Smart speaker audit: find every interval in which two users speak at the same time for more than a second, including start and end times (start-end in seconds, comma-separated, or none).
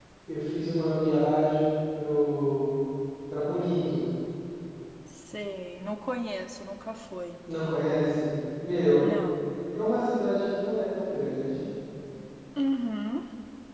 none